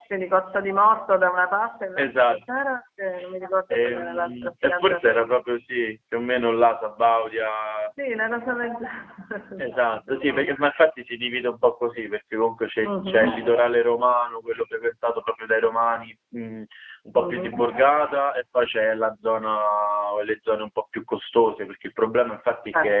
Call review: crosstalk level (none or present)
present